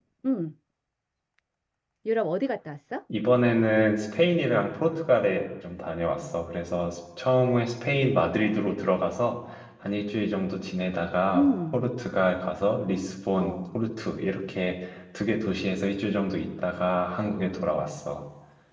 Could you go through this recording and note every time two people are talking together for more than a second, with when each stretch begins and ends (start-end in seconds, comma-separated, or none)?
none